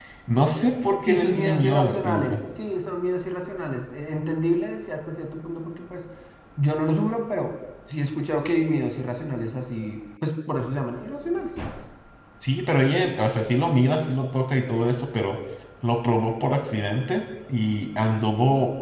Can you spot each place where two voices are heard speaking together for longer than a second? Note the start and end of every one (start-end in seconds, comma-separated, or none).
1.1-2.4